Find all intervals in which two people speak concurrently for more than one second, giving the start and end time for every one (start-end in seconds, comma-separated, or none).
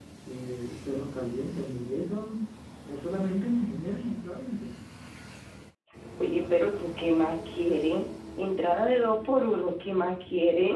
none